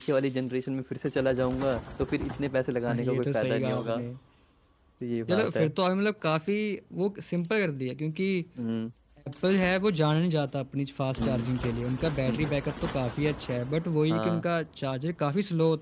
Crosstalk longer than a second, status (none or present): present